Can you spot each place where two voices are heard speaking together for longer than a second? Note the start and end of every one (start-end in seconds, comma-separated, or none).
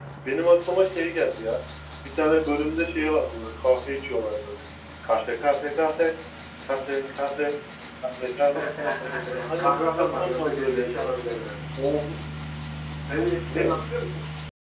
9.6-11.0